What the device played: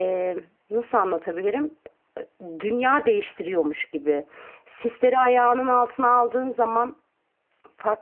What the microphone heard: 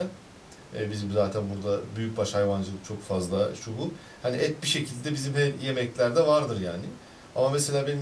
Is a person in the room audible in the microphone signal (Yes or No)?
Yes